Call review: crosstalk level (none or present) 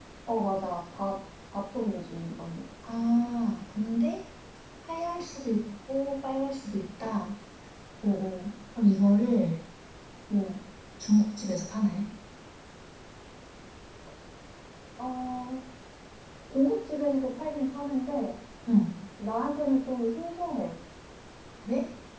none